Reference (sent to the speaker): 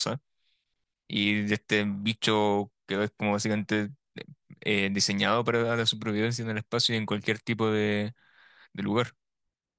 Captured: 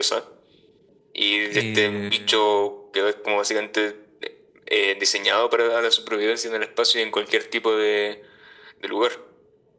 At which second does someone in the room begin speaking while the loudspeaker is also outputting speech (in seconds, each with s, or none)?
1.5 s